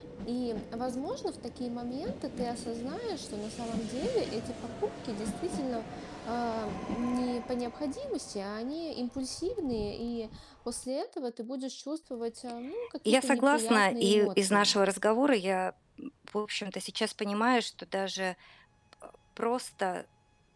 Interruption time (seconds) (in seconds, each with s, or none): 13.0 s